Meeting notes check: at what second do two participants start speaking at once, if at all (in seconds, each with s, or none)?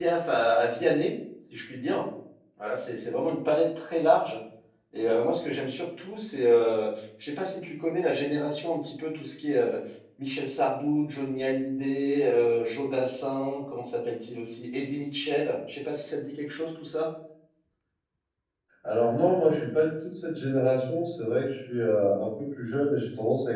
none